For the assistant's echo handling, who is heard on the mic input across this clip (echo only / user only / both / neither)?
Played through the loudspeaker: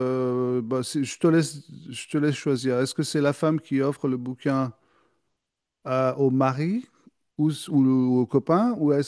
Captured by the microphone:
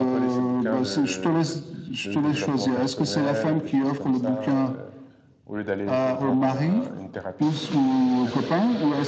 both